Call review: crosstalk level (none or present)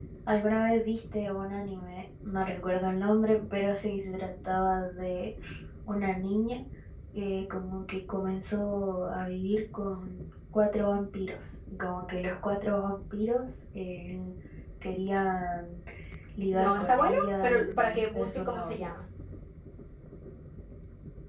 present